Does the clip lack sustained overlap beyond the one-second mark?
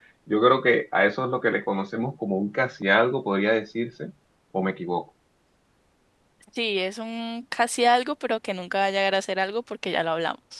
Yes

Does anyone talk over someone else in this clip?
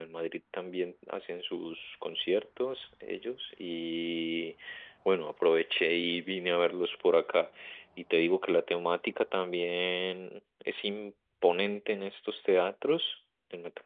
No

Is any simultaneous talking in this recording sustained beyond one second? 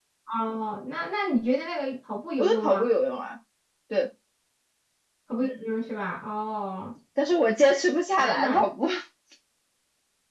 No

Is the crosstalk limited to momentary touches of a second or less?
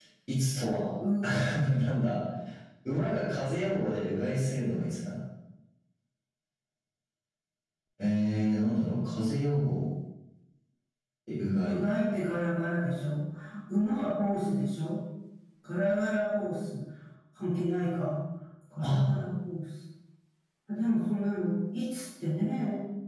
Yes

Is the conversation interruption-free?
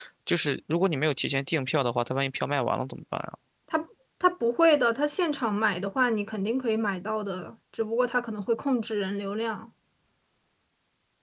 Yes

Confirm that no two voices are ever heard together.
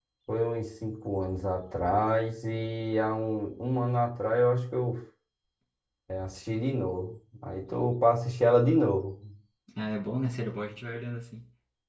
Yes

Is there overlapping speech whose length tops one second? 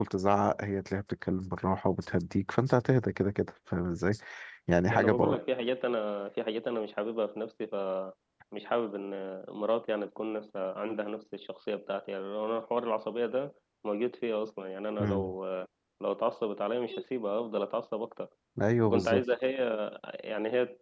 No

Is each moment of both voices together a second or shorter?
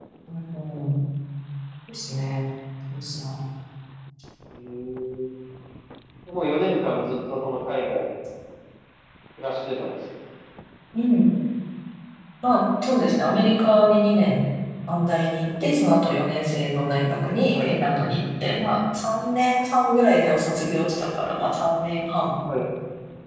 Yes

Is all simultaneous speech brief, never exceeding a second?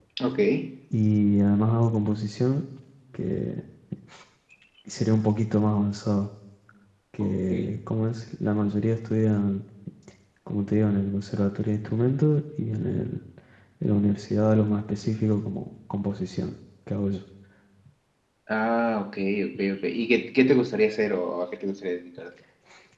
Yes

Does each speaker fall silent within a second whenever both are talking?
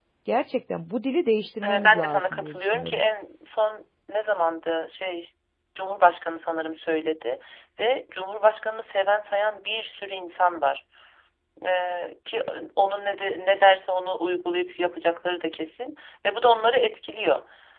No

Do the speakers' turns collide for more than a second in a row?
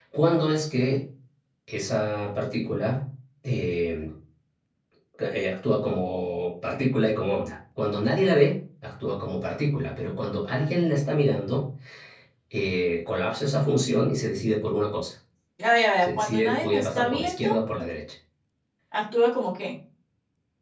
Yes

